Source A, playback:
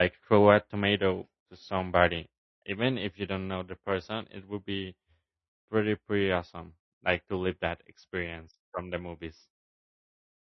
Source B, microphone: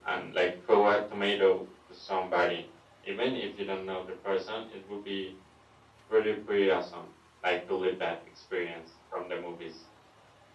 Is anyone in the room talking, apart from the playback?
No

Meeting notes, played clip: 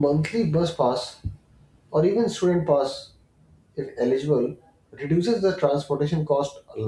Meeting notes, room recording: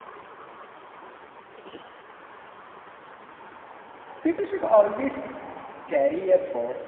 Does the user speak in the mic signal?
Yes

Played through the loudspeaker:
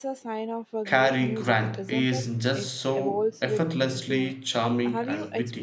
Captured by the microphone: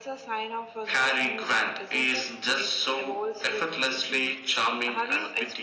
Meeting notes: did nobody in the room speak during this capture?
Yes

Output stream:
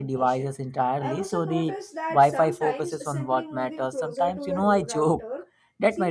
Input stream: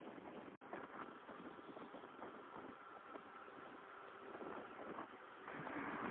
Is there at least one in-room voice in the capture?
No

